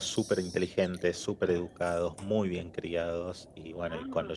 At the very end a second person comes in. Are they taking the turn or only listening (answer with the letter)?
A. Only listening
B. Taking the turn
A